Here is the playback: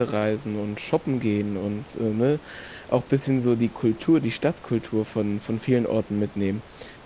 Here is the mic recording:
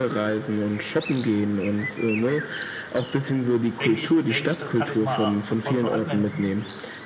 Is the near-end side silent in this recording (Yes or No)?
No